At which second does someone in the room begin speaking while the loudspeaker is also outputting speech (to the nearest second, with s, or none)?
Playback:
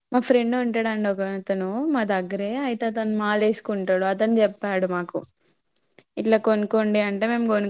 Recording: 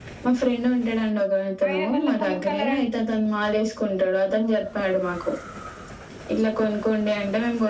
2 s